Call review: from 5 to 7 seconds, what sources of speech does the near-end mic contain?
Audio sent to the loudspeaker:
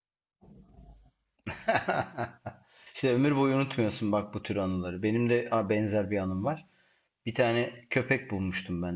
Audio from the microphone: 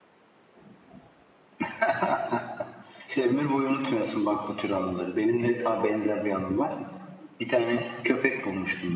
echo only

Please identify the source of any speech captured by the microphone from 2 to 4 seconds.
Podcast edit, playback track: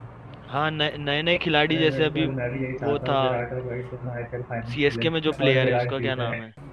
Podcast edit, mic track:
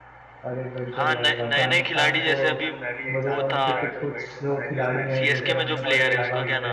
both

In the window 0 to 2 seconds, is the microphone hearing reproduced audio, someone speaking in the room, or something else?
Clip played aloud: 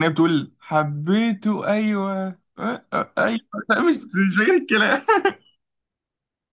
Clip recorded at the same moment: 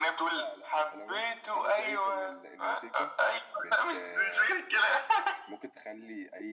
both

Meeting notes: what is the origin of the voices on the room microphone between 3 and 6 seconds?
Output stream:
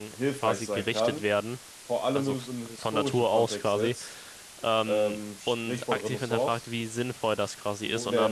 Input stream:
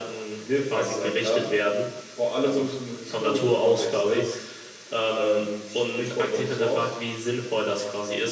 echo only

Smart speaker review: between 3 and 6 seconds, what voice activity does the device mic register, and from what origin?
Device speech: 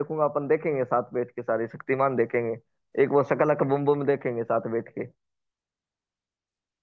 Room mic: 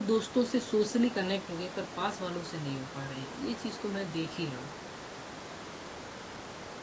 user only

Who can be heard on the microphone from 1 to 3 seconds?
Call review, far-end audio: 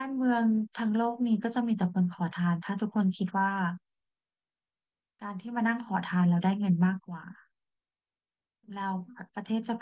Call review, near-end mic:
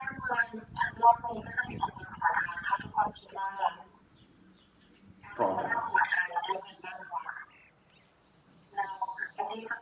echo only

